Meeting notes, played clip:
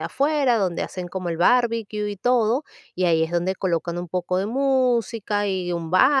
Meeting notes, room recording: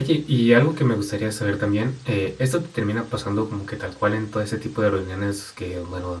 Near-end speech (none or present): present